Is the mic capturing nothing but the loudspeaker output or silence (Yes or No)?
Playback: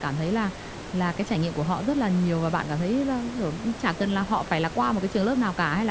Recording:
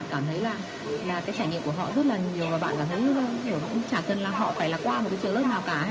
No